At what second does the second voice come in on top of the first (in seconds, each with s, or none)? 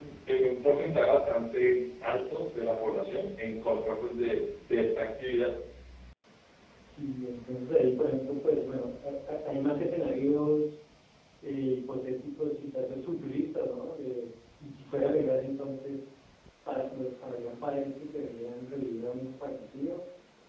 none